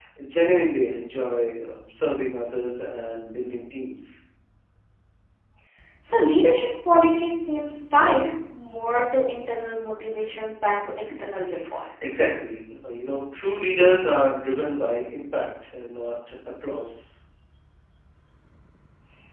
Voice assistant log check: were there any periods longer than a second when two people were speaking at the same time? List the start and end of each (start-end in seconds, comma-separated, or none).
none